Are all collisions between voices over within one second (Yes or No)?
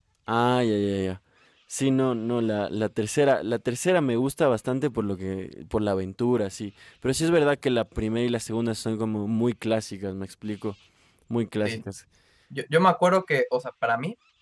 Yes